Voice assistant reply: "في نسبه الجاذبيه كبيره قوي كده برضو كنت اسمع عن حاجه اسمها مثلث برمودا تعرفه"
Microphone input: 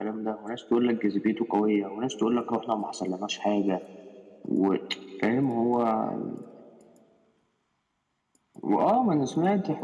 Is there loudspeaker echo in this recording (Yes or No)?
No